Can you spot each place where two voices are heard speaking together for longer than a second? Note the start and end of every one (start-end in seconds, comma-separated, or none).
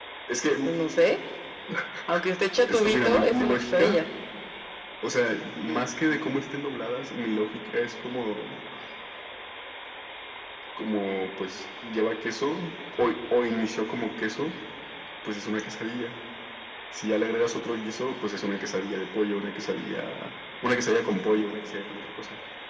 2.7-4.0